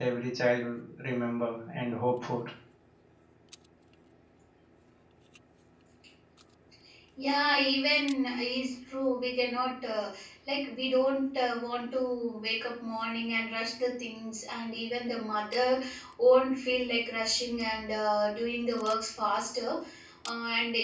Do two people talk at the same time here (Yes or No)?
No